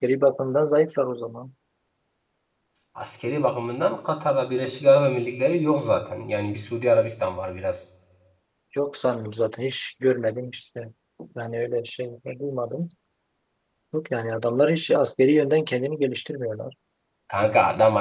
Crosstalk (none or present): none